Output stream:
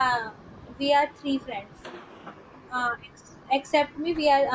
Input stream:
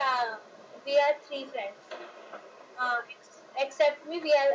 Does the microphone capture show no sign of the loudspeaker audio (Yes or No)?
No